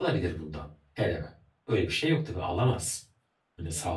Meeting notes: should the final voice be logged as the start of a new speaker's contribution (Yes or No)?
No